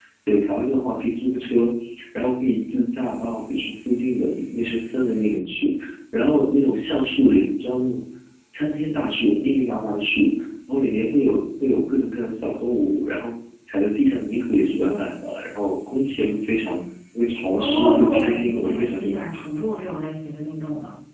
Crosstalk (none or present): present